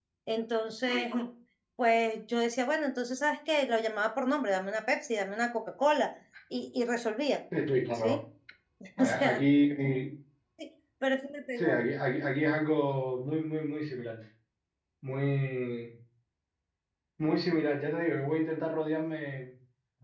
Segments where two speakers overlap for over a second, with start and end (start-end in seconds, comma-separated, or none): none